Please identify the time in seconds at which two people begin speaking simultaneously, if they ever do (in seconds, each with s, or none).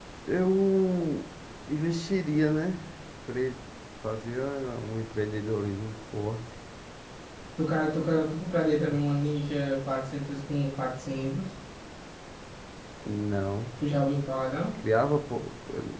none